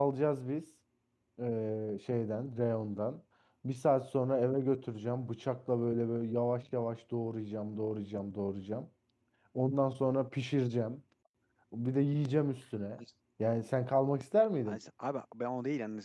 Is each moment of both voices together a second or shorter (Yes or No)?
Yes